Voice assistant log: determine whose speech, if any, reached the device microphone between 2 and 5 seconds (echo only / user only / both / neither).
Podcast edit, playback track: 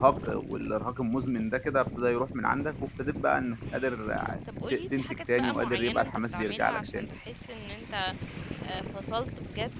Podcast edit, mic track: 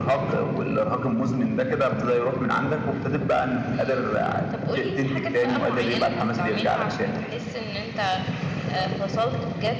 echo only